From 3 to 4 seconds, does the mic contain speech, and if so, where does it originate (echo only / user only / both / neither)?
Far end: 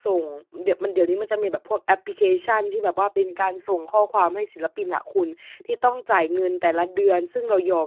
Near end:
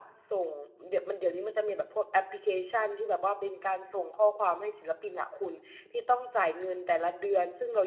echo only